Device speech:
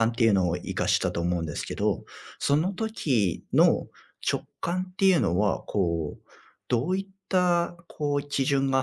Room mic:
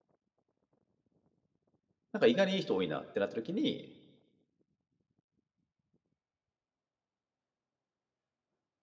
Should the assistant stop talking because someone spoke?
Yes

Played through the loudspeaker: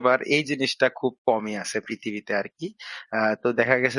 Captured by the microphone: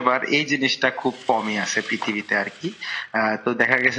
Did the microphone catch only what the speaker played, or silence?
Yes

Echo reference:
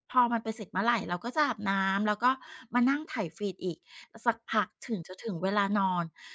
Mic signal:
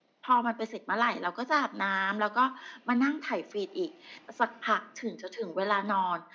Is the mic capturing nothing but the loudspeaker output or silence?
Yes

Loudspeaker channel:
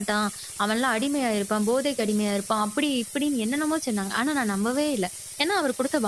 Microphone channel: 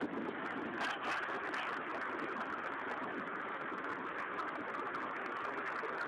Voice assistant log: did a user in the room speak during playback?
No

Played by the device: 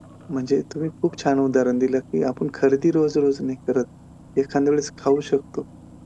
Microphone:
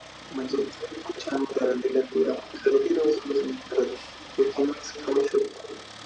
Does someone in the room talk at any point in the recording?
No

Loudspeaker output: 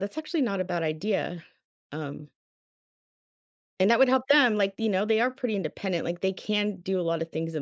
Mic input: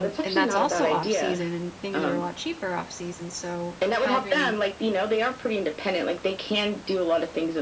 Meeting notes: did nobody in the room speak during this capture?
No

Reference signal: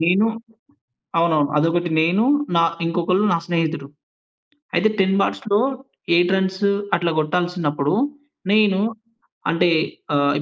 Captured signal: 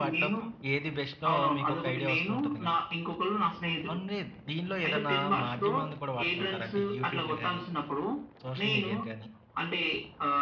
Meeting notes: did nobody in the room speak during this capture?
No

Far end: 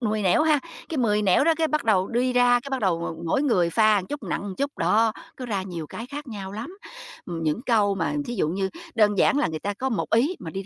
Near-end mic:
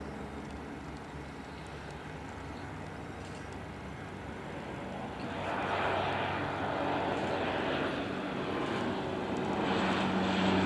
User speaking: No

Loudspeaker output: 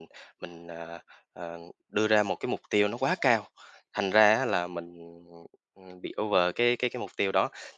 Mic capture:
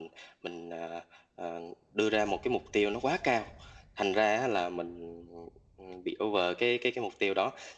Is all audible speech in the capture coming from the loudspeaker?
Yes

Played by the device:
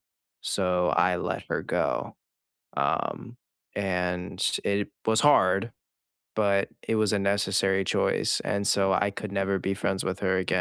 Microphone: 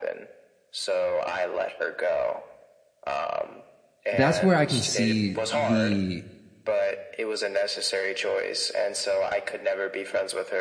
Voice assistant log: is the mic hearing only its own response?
No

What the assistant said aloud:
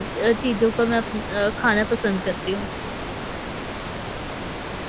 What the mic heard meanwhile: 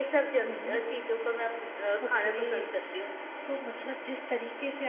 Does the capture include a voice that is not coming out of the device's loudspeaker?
Yes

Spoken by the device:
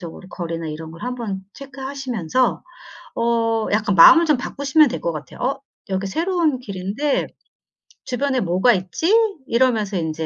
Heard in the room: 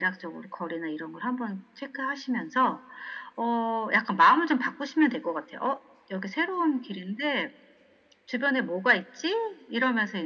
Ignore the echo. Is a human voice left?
No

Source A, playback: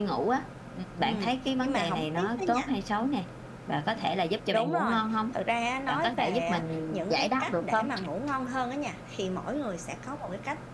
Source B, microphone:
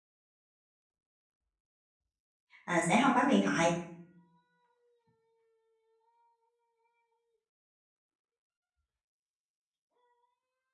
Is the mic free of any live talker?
No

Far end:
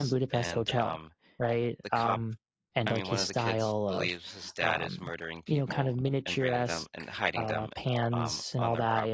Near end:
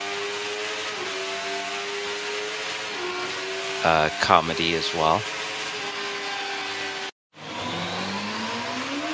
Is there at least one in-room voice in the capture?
Yes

